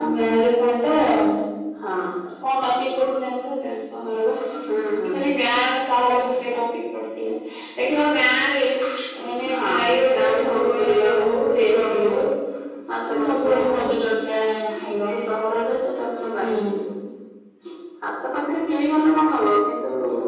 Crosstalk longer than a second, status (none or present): present